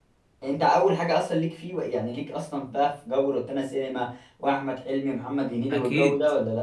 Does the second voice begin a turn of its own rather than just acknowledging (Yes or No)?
Yes